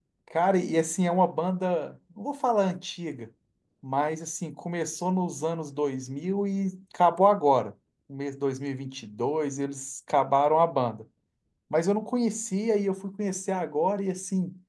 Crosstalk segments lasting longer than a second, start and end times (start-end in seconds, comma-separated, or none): none